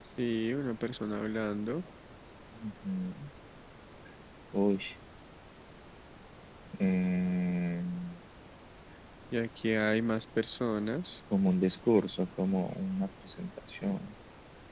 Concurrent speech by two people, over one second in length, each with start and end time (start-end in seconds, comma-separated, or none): none